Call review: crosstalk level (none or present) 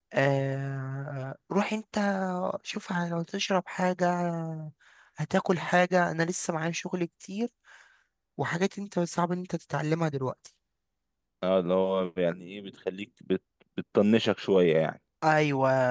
none